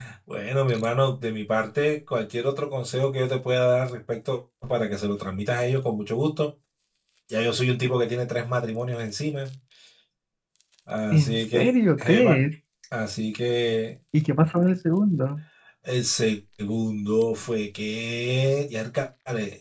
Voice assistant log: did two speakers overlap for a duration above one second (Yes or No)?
Yes